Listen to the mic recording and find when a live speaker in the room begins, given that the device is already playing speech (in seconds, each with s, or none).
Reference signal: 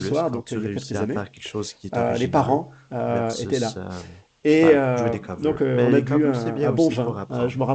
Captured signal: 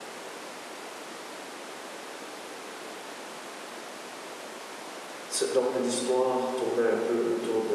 5.3 s